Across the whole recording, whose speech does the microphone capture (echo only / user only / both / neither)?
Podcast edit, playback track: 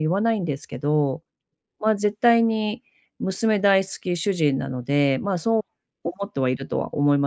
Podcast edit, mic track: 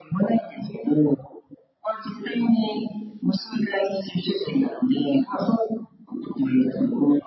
echo only